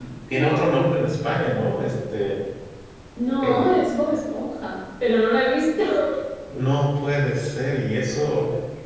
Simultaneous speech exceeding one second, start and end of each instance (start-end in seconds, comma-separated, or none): none